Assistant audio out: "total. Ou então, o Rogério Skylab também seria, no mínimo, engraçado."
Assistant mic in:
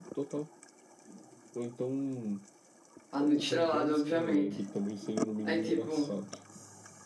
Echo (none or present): present